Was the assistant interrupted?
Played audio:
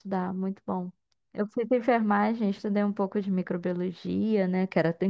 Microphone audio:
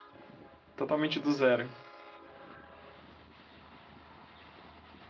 Yes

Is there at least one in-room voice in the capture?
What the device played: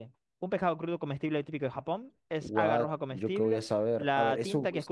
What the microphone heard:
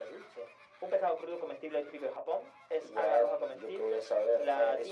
No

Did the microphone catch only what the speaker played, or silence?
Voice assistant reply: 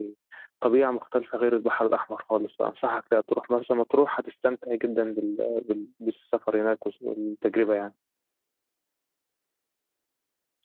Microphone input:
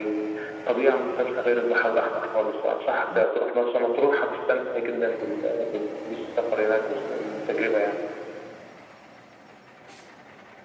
Yes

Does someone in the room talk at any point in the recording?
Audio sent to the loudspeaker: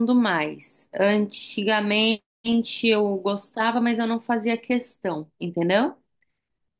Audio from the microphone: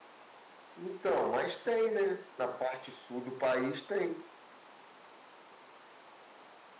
Yes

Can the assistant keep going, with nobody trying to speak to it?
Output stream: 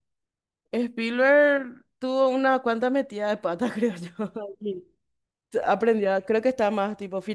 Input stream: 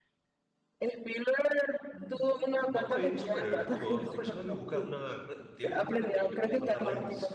No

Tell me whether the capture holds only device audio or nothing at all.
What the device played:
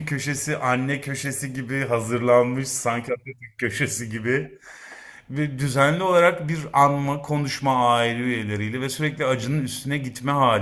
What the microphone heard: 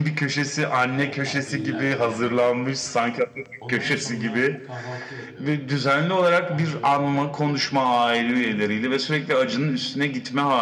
No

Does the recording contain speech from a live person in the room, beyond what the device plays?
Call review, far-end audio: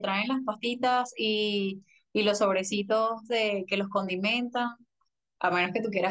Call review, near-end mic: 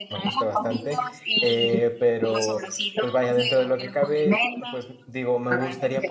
Yes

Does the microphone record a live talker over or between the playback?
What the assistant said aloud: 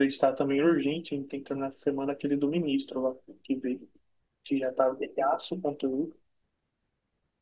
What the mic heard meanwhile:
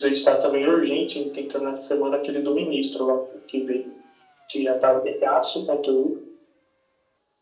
No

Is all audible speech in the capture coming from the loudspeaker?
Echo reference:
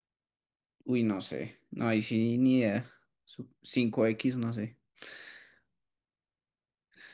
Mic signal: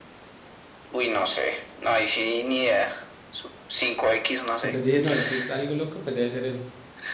No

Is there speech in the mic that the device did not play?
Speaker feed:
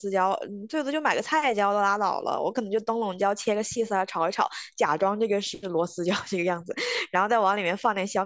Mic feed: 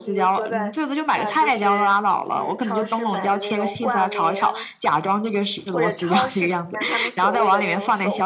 Yes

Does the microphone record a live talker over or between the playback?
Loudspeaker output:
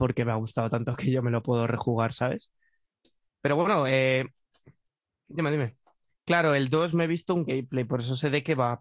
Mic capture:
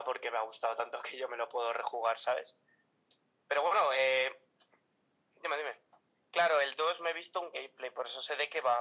No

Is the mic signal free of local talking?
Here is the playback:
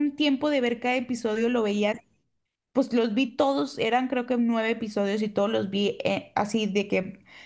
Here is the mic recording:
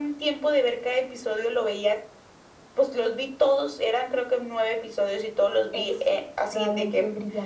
No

